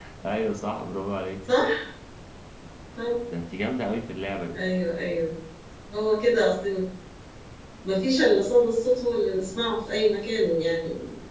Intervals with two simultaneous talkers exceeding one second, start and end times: none

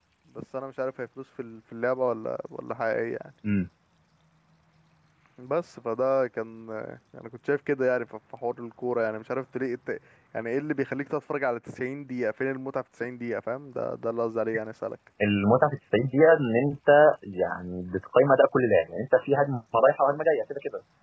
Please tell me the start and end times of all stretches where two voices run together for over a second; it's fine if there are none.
none

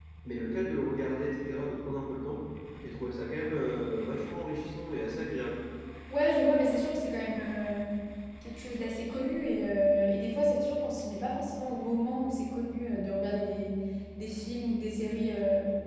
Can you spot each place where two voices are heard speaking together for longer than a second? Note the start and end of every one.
none

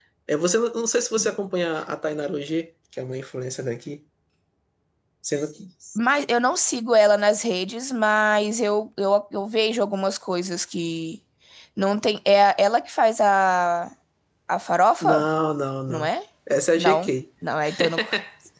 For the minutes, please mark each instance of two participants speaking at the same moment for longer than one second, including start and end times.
none

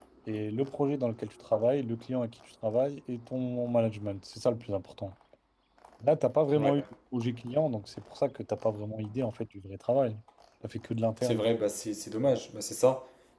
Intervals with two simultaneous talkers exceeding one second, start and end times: none

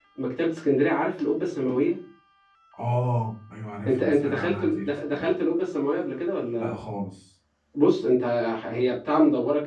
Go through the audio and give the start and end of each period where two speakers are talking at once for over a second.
3.8-5.3

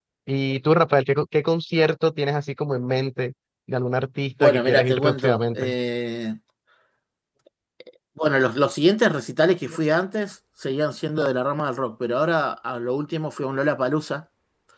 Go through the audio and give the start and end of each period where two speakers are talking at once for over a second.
4.4-5.7

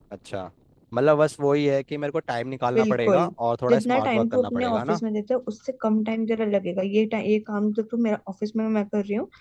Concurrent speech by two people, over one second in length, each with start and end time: 3.7-5.0

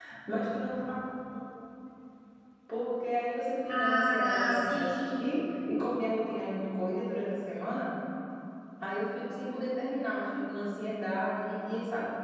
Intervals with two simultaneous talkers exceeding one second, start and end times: 3.7-5.3

